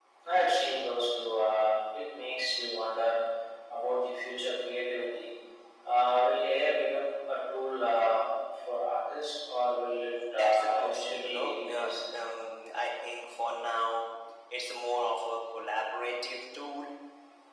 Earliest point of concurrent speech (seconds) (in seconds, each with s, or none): 10.3 s